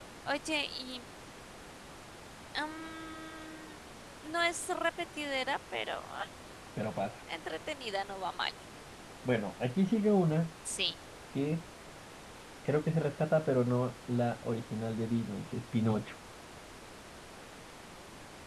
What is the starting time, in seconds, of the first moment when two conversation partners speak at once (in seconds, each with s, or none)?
none